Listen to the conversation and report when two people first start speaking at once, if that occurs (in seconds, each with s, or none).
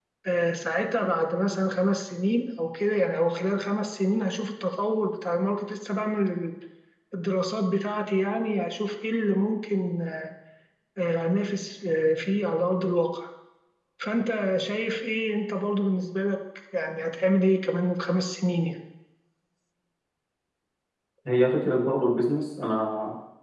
none